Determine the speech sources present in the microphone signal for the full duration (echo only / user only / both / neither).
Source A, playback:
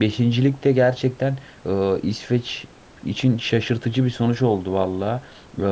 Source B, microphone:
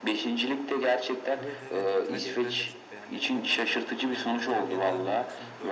both